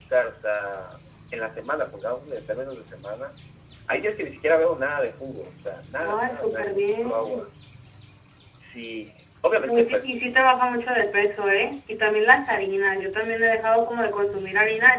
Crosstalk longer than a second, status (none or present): present